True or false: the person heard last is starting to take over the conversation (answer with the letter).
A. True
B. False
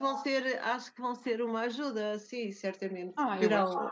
A